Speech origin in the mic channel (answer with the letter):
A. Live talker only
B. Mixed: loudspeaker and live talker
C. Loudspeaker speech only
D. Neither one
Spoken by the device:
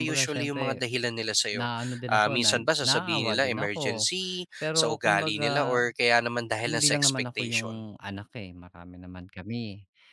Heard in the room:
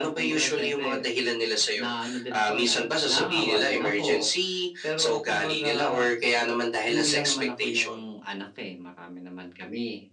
C